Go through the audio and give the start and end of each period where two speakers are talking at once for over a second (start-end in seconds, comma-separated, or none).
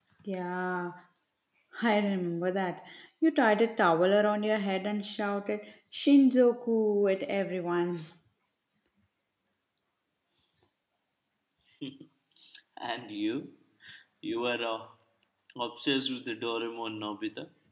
none